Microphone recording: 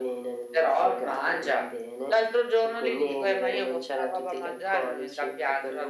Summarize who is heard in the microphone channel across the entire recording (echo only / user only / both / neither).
echo only